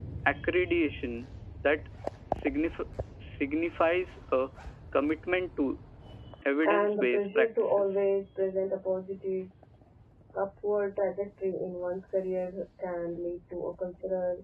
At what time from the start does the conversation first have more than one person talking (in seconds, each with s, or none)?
6.7 s